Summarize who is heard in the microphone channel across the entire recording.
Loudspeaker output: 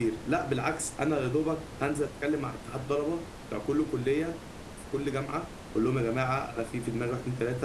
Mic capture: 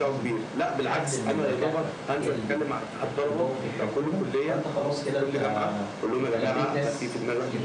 both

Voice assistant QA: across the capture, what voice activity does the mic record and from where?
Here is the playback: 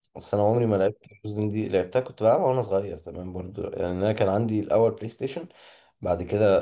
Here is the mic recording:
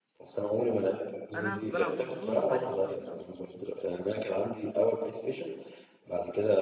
both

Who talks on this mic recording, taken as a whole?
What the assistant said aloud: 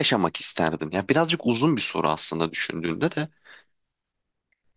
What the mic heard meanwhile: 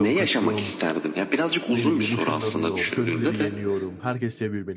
both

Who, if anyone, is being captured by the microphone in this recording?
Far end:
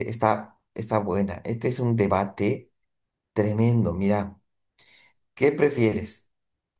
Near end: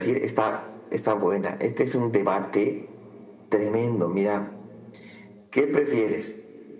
echo only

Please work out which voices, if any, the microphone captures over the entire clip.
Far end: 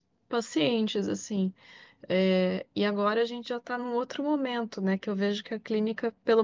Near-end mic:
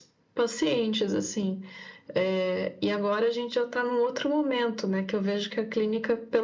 echo only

